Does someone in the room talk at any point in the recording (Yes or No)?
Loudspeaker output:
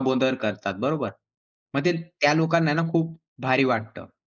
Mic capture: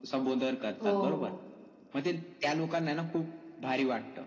Yes